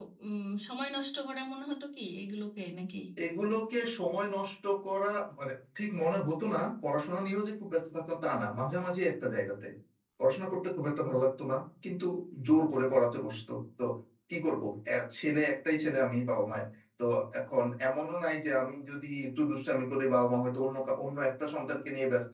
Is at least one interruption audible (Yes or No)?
No